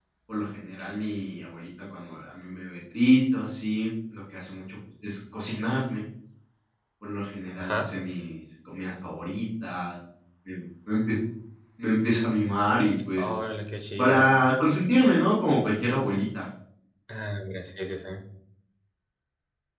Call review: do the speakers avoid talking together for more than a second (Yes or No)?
Yes